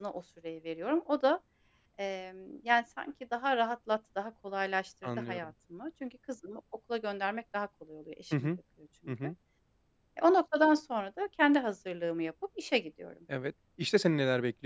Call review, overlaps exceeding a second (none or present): none